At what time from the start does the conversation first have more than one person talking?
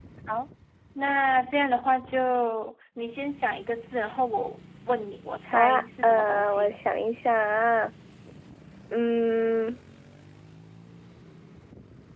5.5 s

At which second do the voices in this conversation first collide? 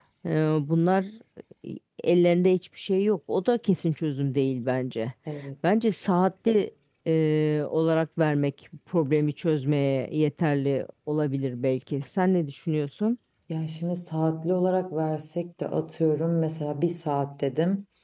none

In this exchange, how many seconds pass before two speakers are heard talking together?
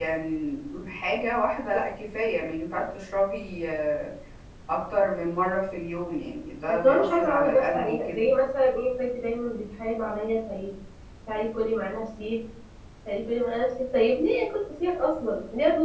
6.7 s

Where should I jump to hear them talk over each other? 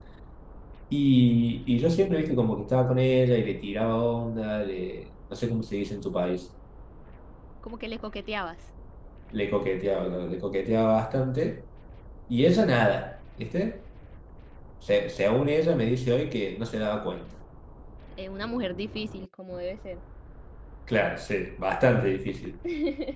none

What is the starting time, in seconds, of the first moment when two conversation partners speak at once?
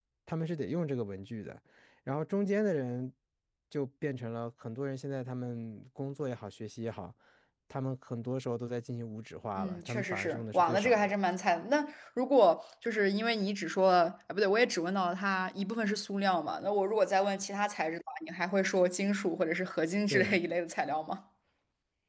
9.6 s

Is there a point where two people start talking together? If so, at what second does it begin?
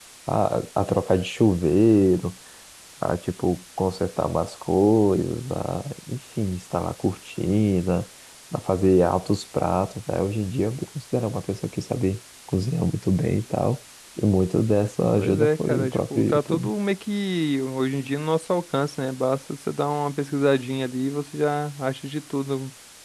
15.2 s

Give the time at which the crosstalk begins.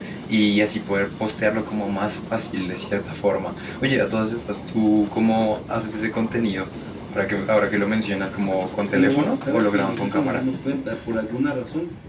8.9 s

